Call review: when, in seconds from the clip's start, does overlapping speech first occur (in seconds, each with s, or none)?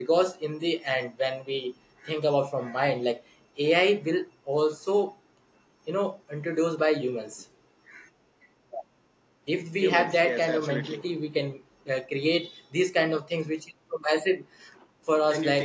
9.8 s